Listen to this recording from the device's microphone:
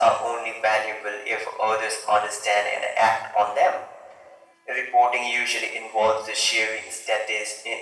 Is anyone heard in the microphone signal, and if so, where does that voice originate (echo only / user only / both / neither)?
echo only